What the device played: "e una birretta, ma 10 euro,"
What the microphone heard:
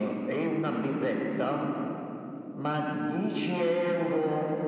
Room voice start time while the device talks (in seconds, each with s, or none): none